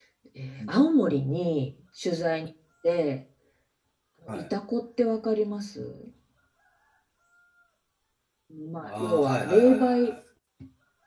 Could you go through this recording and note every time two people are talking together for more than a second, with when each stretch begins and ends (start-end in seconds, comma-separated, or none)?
8.8-10.1